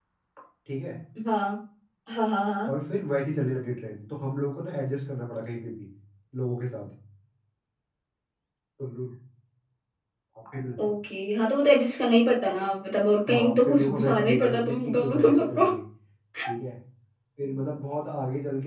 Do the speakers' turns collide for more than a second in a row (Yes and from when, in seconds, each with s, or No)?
Yes, from 13.3 s